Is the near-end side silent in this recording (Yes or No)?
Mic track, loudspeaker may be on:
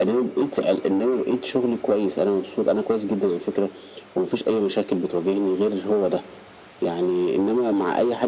Yes